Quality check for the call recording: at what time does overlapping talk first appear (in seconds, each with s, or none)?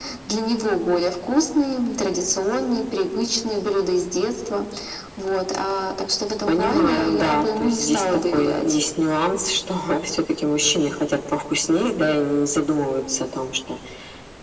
6.5 s